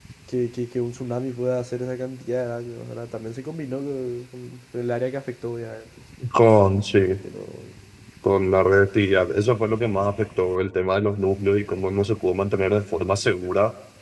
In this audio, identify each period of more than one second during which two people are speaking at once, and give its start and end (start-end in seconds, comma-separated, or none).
none